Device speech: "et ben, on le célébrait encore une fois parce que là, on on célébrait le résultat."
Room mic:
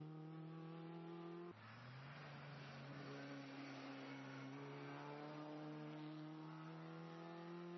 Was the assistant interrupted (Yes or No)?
No